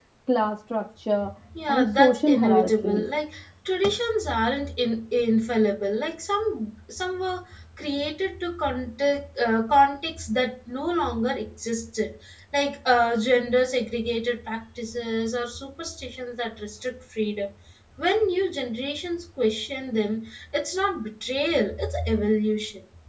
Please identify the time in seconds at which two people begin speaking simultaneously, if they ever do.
1.7 s

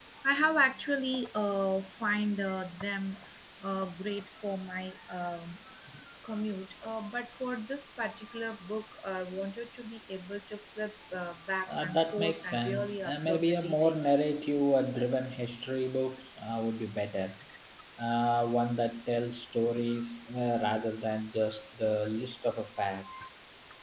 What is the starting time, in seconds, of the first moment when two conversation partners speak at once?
11.7 s

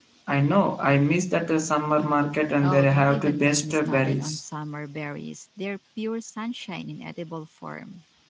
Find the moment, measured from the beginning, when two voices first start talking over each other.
2.6 s

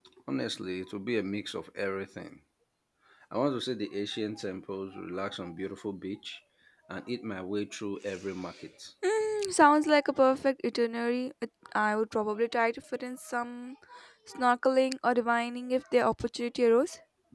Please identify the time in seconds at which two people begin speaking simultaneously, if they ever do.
none

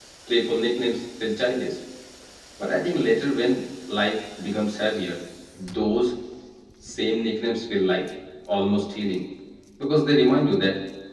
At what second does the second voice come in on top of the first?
none

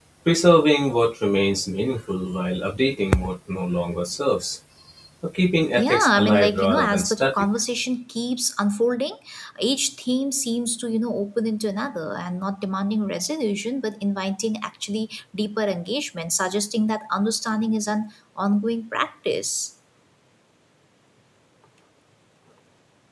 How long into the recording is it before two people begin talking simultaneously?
5.8 s

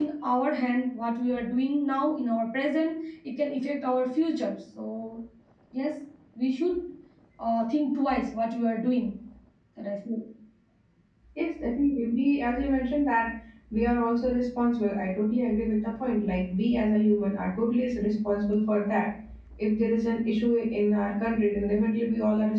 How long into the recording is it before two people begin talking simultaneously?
none

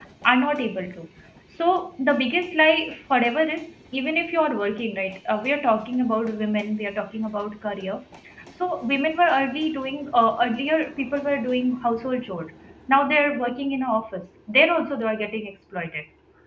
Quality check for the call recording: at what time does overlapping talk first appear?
none

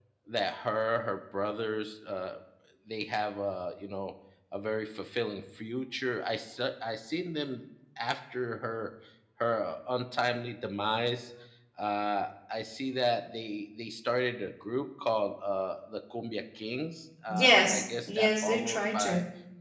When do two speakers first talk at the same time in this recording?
17.3 s

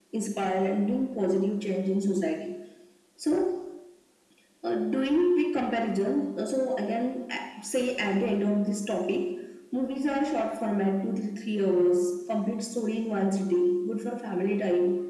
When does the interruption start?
none

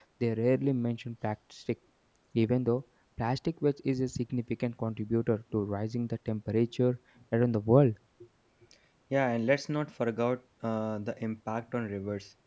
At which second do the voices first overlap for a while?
none

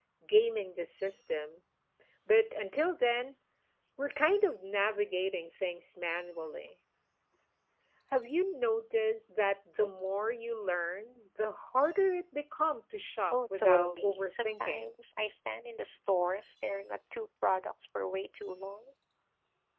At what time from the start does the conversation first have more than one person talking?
13.3 s

